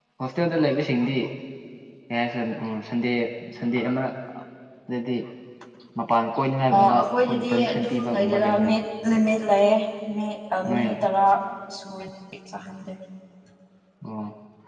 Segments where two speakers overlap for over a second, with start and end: 6.8-8.8

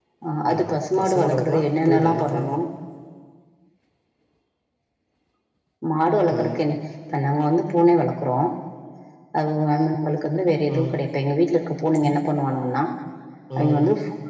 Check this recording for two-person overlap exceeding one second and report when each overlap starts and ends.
1.0-2.6

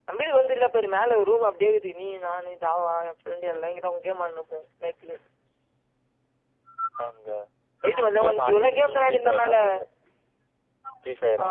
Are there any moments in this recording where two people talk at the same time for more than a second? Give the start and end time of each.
8.2-9.6

